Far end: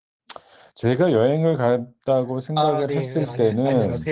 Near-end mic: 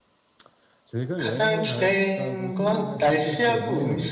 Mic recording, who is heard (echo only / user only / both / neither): both